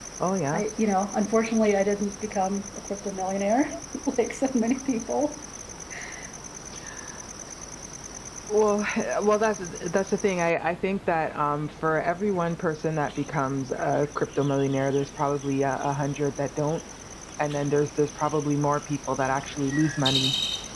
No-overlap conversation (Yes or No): Yes